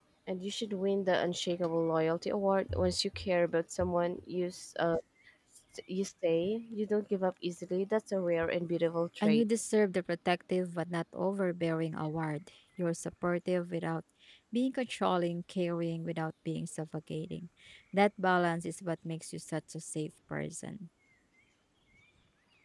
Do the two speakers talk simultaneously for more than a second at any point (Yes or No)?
No